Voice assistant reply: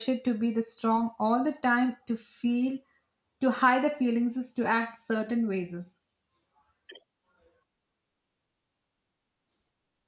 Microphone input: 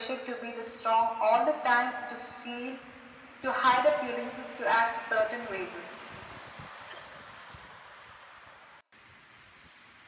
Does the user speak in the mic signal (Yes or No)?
No